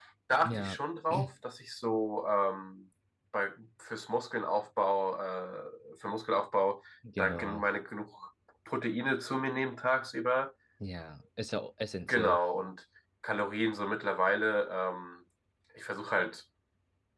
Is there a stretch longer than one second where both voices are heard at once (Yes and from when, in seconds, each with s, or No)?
No